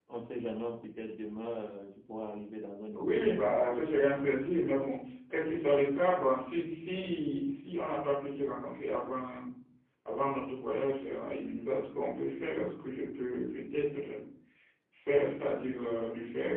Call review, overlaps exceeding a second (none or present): present